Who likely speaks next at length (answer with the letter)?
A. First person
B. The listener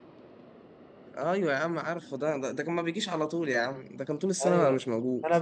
B